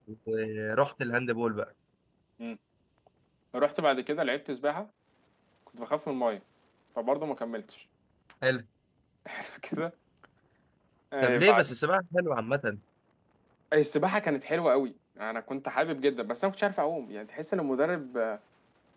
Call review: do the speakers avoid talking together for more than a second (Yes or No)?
Yes